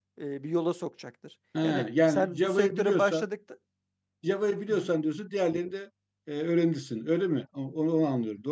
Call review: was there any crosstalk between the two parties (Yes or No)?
Yes